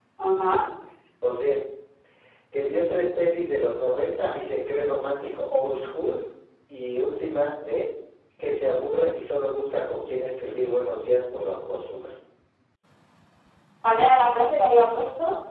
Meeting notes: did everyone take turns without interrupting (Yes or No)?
Yes